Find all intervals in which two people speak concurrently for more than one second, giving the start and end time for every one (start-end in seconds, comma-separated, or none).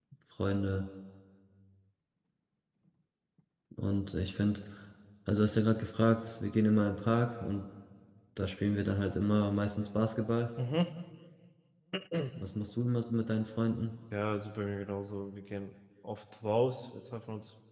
none